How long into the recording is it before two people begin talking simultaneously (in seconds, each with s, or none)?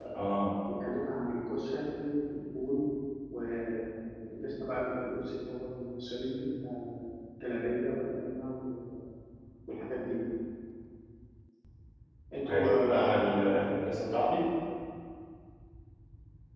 12.5 s